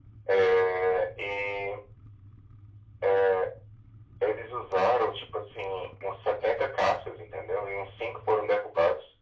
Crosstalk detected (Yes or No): No